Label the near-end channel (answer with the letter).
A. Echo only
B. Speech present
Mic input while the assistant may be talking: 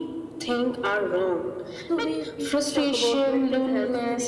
B